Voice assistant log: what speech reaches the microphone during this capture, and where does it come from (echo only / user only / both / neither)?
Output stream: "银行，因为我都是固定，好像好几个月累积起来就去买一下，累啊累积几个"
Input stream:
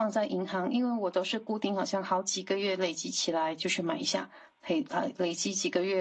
echo only